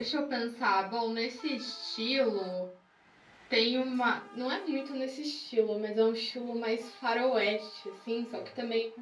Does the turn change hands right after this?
No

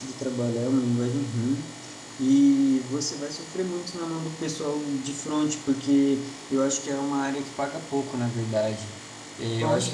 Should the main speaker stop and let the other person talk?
No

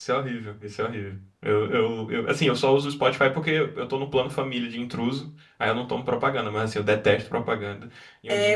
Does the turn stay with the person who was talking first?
No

